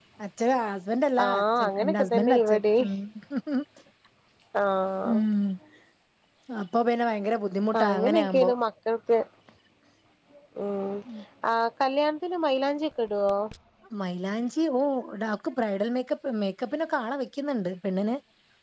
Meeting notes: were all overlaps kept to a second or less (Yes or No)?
No